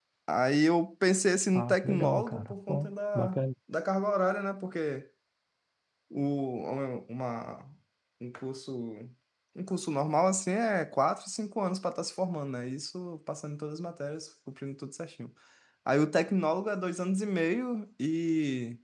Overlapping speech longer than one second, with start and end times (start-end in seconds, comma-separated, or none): 1.6-3.4